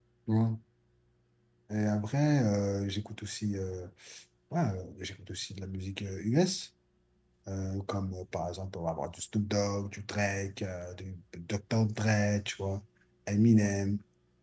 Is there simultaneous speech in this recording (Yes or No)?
No